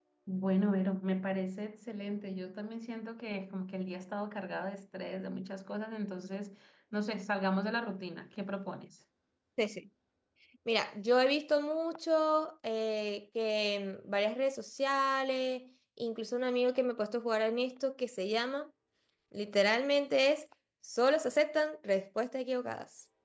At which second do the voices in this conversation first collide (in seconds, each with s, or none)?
none